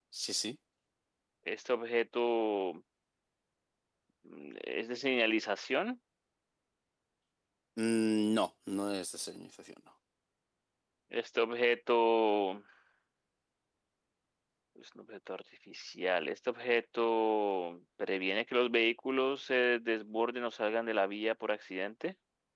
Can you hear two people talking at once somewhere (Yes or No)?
No